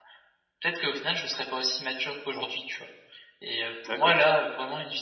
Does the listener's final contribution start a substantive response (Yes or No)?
No